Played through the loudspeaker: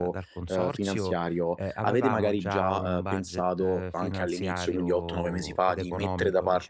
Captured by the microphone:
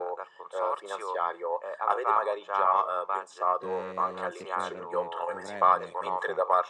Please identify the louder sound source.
echo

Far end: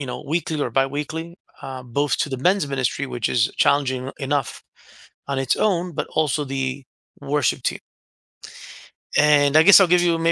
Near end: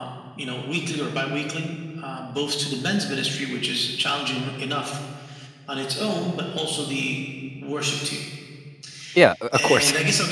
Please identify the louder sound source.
user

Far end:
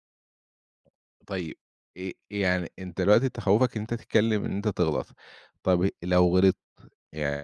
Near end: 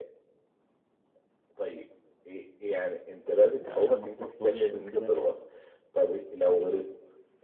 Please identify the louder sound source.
echo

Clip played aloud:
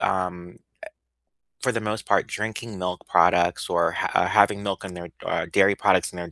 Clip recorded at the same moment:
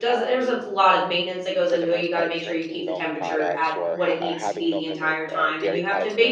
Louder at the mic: user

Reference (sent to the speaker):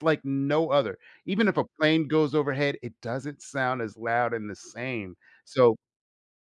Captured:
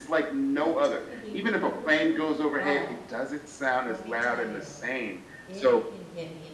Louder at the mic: echo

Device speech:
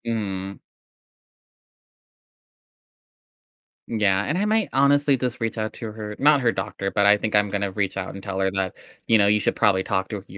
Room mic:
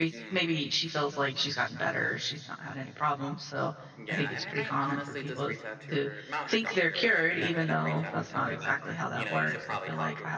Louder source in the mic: user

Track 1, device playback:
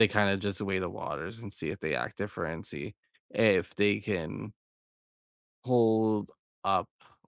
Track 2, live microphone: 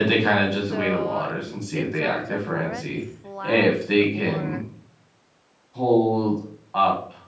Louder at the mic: echo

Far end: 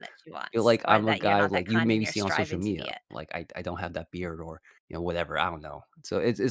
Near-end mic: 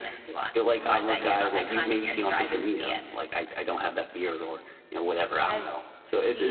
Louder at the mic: echo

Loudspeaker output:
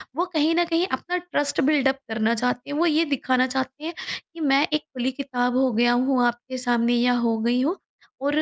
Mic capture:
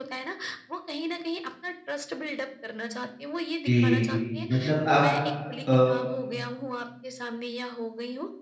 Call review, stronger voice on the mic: user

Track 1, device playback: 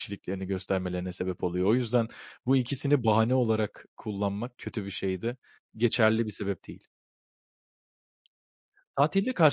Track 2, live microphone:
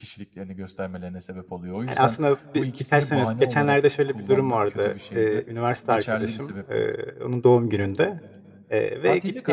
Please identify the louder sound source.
user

